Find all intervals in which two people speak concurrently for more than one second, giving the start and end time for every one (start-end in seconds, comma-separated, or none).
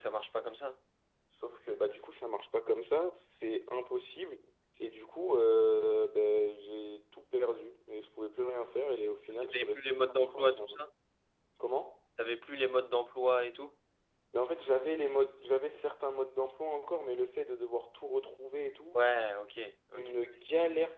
9.3-10.8